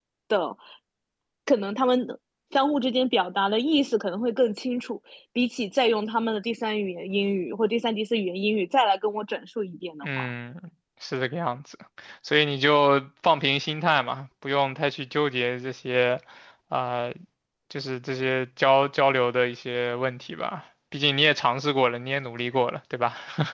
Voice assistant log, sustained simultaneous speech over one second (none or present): none